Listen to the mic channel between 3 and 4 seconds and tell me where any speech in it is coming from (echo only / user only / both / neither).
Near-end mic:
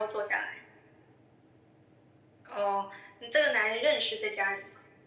echo only